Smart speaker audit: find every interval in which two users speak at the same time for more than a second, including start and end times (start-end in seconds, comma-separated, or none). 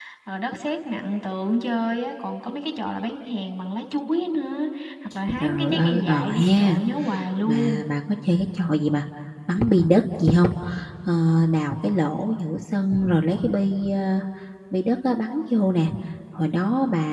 5.4-6.8